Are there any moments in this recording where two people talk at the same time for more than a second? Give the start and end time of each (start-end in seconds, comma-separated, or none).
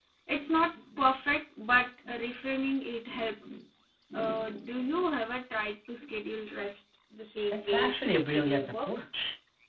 7.5-9.0